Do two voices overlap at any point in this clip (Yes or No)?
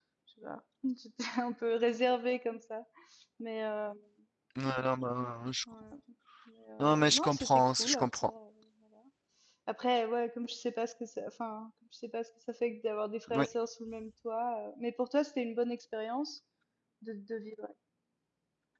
Yes